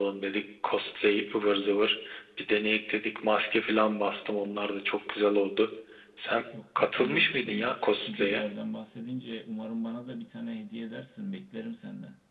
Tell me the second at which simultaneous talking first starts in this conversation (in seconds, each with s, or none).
6.8 s